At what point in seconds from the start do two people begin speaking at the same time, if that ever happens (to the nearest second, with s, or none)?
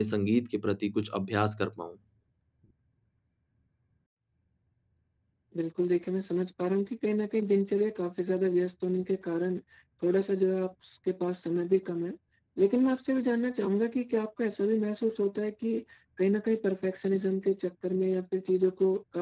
none